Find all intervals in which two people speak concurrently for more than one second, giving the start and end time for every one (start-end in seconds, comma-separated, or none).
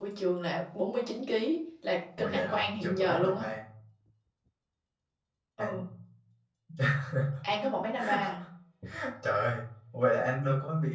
2.2-3.5